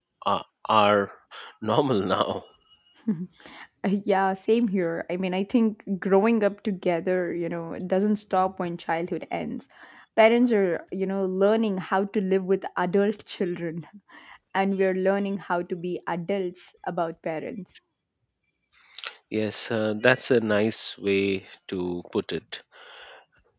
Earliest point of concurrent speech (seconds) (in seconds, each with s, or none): none